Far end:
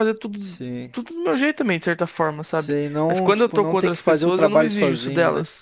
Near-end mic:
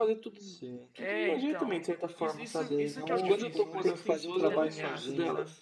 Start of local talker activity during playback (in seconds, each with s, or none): 0.9 s